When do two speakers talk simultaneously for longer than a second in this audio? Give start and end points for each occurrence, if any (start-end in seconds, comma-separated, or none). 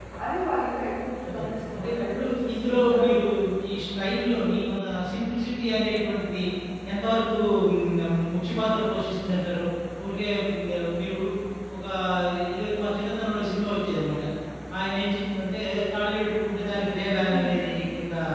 1.3-3.1